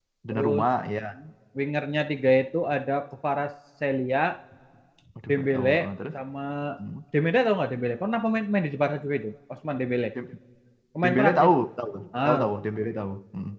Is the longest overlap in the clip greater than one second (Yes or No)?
No